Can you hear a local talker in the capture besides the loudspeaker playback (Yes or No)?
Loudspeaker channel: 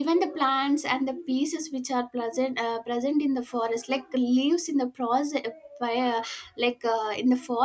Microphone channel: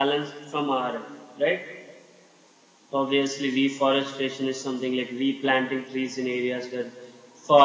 Yes